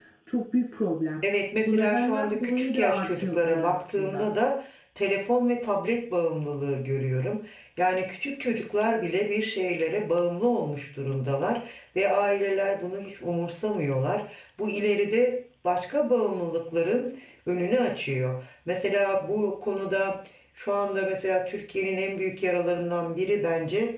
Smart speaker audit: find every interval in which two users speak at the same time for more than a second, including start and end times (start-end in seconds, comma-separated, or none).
1.7-4.3